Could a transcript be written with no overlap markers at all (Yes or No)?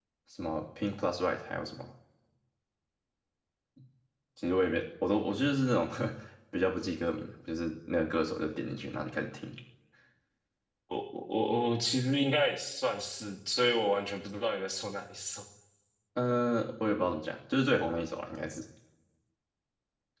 Yes